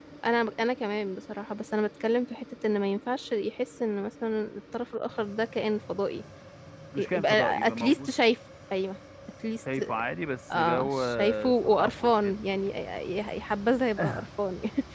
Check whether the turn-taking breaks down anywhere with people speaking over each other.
Yes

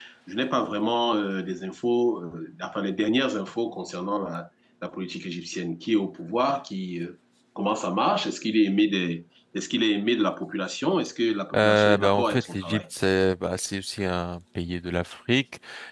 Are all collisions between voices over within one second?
No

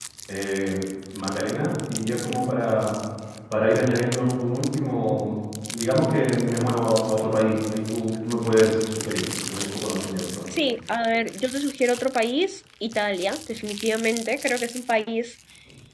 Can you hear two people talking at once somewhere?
No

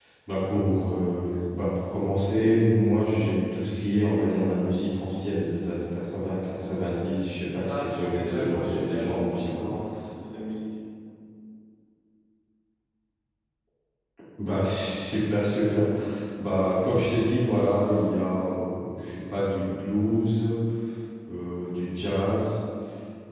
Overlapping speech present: Yes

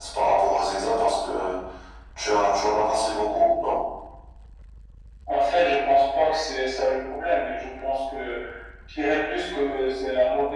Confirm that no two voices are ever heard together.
Yes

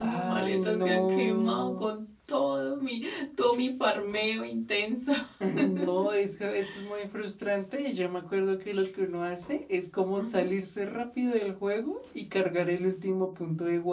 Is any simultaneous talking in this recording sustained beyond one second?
Yes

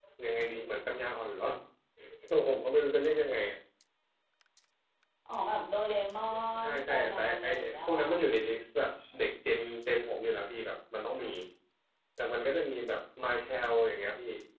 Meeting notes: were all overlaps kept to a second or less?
No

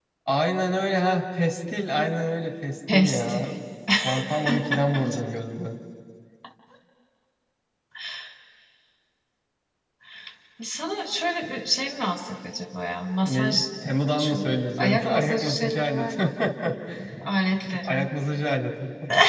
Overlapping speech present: Yes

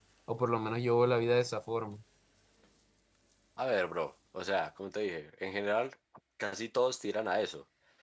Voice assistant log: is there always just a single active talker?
Yes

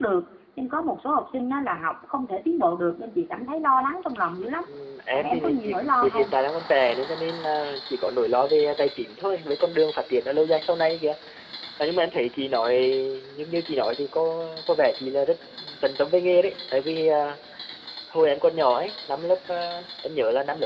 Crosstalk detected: Yes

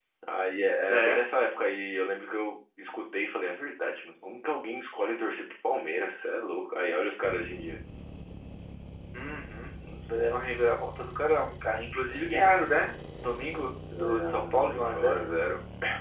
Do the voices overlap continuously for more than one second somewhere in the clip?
Yes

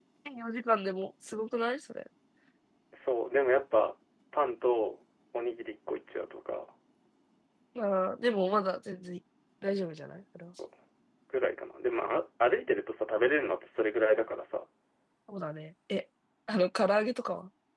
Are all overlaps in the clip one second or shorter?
Yes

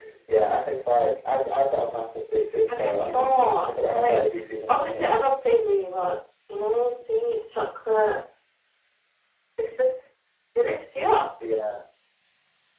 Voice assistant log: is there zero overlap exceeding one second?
No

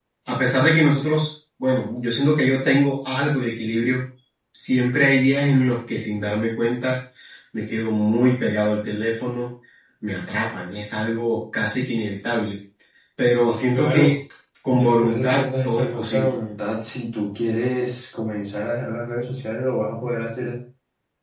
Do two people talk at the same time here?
Yes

